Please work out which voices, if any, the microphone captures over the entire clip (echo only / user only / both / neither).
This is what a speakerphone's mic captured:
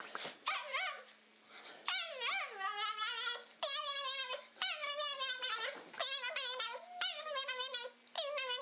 neither